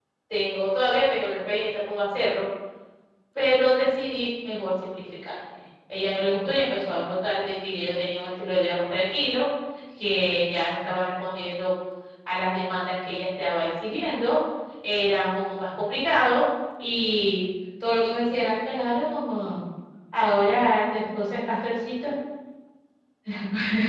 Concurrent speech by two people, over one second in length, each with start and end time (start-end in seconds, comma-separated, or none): none